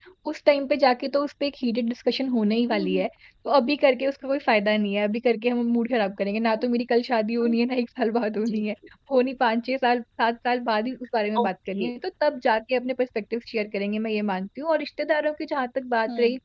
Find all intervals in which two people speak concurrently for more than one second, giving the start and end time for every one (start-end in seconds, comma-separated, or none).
none